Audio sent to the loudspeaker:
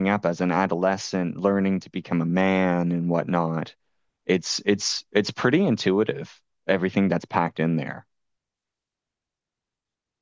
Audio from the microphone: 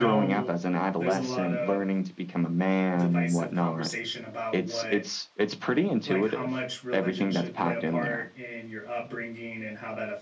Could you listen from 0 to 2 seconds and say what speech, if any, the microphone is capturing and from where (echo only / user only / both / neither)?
both